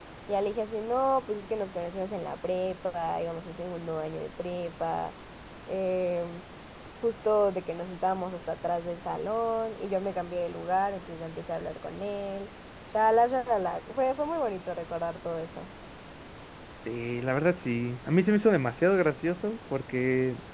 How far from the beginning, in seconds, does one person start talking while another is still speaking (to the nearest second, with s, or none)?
none